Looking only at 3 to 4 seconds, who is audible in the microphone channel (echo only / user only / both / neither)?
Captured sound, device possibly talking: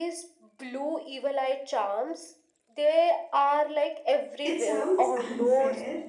echo only